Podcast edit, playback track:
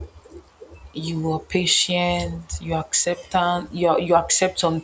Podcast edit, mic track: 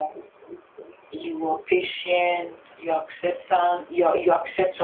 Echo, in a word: present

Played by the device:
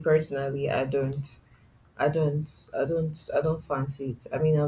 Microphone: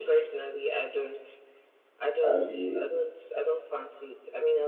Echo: present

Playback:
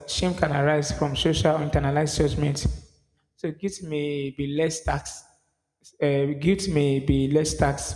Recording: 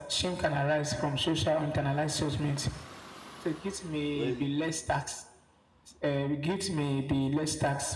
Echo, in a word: present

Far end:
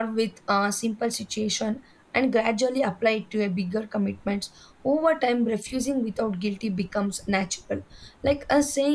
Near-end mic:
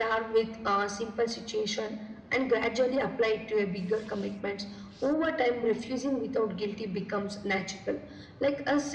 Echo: present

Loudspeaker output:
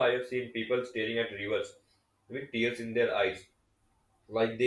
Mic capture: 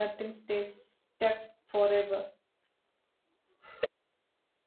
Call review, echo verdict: none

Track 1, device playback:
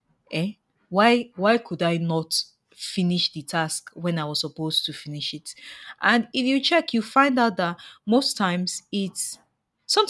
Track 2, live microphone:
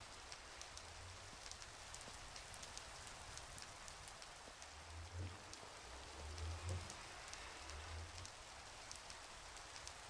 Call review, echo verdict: none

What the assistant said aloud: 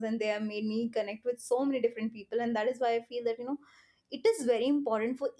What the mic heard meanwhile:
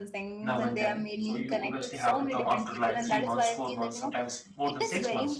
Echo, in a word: present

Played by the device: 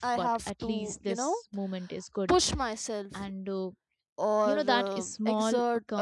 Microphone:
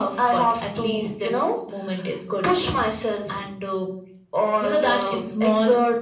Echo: present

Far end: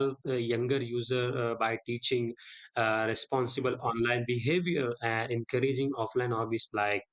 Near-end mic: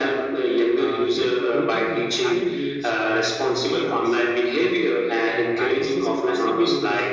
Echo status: present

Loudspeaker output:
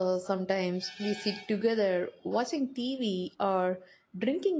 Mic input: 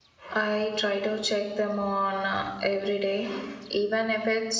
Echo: none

